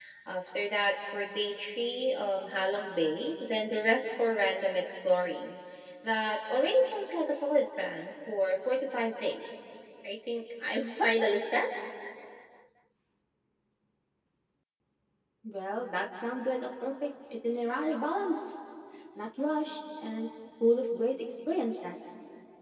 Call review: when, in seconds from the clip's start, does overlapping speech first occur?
none

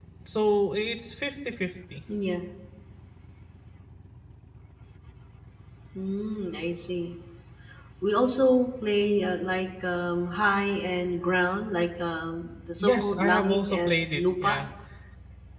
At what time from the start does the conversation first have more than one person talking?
12.8 s

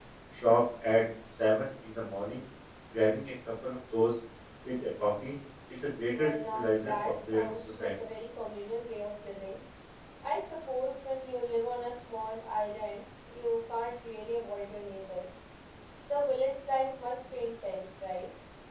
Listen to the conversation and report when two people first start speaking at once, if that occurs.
6.1 s

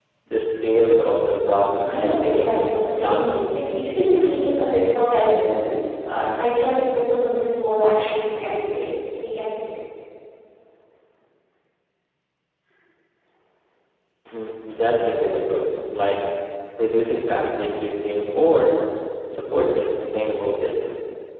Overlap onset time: 1.8 s

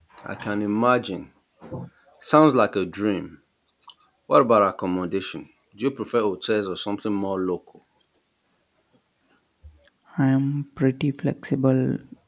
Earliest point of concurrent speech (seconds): none

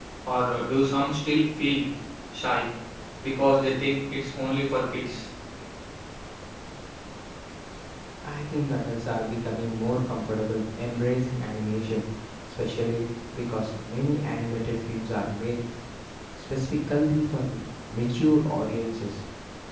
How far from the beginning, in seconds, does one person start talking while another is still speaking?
none

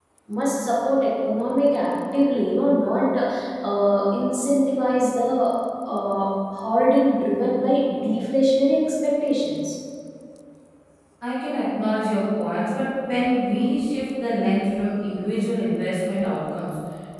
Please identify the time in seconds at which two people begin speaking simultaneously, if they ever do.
none

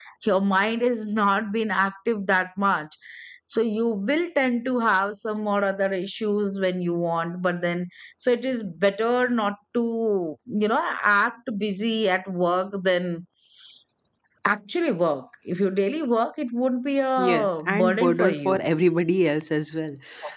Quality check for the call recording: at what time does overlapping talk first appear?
17.2 s

